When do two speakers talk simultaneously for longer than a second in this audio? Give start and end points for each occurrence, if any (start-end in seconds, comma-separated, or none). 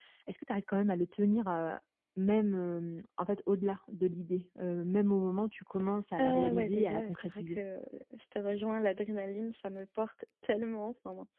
6.2-7.6